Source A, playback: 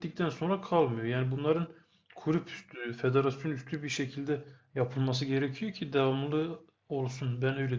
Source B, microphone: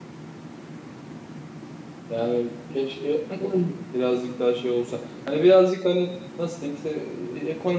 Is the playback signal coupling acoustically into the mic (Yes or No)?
No